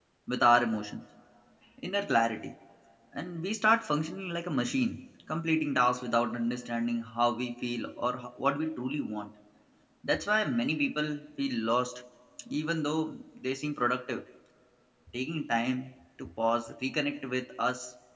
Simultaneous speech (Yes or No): No